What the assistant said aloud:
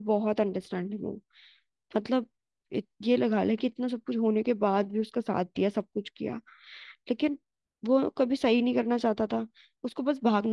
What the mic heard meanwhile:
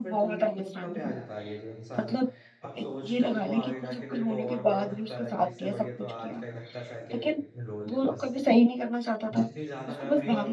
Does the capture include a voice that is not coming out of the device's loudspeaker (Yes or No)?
Yes